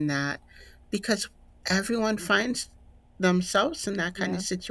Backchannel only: Yes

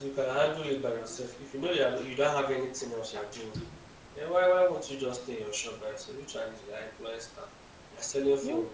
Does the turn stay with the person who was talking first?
Yes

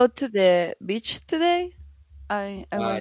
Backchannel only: No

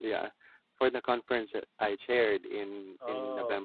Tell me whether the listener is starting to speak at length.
No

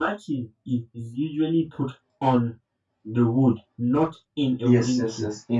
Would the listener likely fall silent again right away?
No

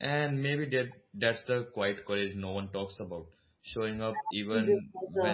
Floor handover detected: Yes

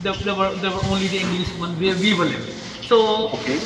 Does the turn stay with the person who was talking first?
Yes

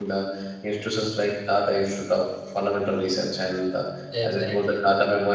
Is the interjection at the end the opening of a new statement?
No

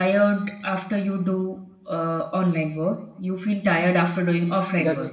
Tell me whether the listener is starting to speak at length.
Yes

